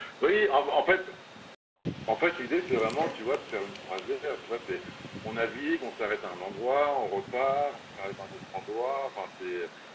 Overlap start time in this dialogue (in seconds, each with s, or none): none